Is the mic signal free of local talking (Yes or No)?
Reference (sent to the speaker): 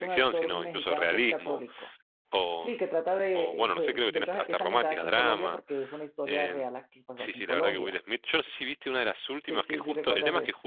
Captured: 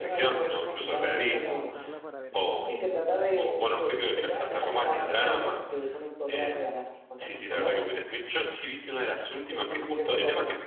No